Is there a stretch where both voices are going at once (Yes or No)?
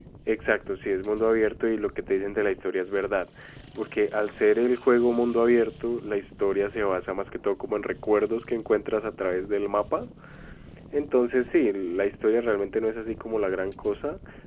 No